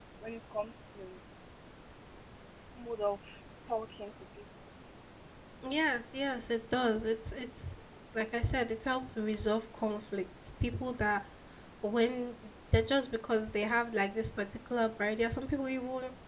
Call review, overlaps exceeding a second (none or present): none